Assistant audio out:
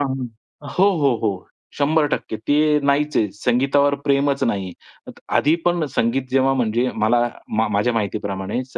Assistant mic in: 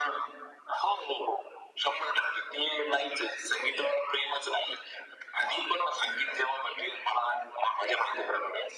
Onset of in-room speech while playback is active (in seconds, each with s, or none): none